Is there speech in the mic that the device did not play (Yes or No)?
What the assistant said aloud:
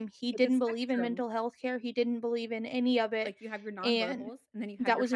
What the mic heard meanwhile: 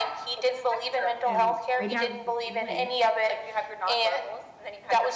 Yes